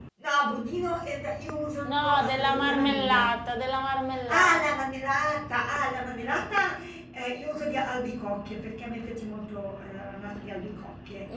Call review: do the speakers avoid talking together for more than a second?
No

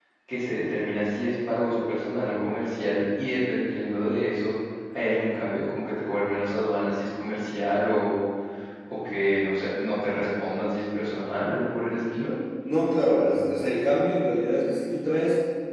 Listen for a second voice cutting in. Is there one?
No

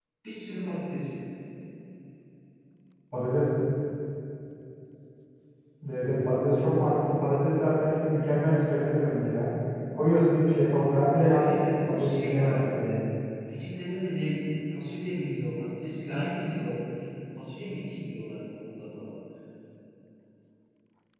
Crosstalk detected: Yes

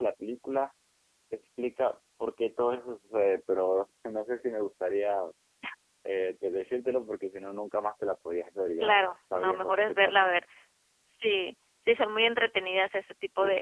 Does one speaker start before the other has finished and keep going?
Yes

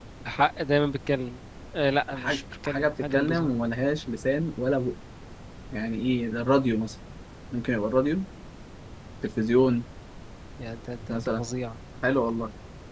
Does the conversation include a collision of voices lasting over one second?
Yes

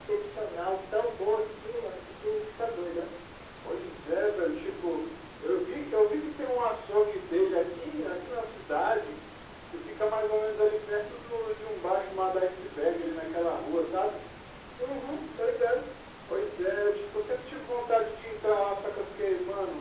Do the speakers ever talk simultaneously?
No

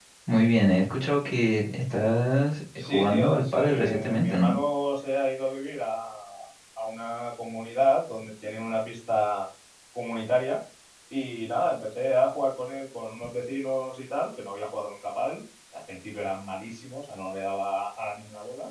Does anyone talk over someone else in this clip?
Yes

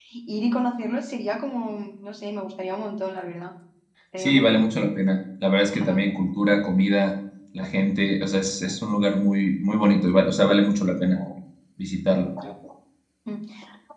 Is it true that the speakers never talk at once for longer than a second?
Yes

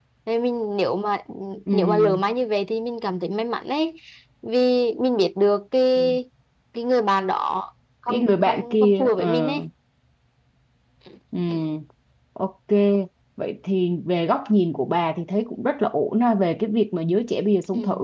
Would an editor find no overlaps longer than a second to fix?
No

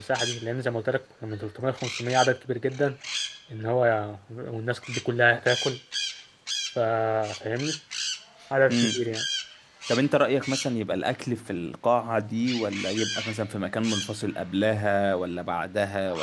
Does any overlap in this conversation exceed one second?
No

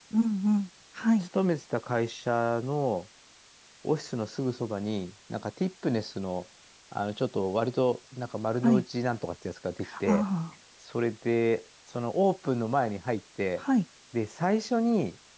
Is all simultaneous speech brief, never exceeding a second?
Yes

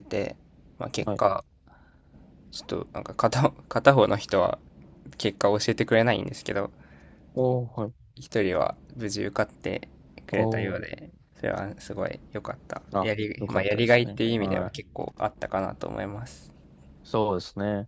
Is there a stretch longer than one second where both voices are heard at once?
Yes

